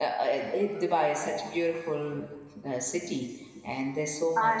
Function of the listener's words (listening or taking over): listening